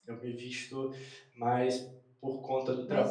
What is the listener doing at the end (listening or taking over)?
listening